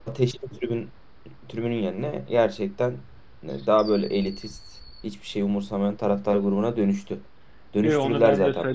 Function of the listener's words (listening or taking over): taking over